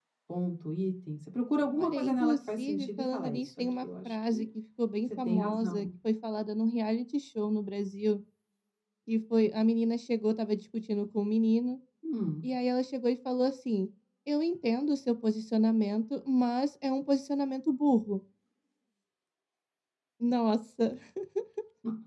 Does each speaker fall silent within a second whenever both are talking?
No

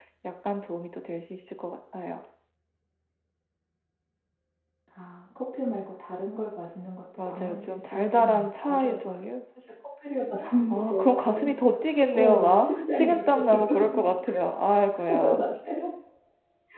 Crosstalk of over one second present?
Yes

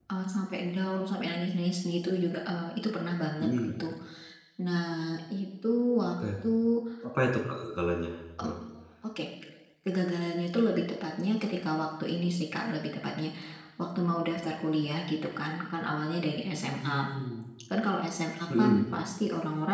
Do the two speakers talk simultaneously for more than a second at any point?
No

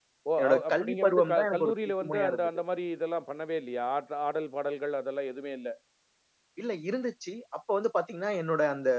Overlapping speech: Yes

